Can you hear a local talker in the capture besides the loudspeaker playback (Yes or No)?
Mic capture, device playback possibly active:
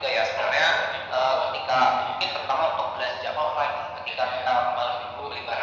No